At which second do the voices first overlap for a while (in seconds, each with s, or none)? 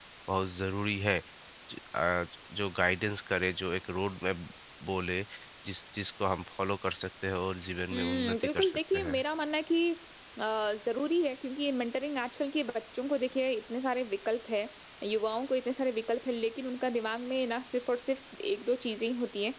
7.9 s